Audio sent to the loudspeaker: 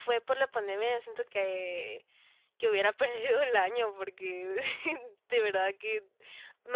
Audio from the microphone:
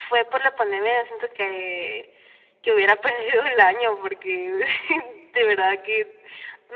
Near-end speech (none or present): none